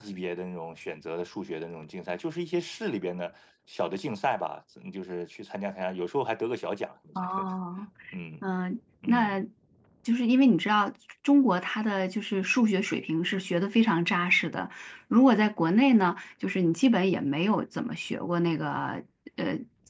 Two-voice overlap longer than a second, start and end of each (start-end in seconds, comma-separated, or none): none